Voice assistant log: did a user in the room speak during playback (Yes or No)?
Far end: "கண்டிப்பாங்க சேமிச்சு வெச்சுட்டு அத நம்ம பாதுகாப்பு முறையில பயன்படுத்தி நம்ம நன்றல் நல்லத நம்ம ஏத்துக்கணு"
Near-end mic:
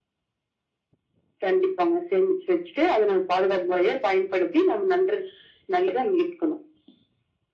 No